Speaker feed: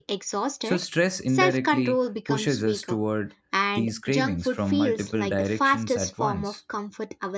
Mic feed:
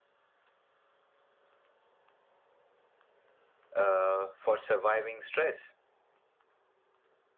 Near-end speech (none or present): present